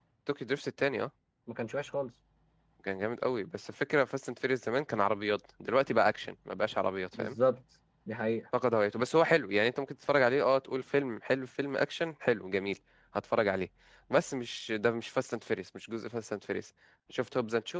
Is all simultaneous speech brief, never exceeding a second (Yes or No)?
Yes